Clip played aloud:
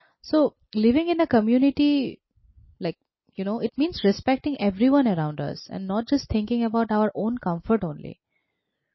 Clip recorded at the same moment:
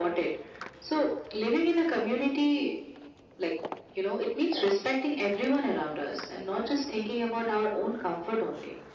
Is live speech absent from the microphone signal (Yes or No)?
Yes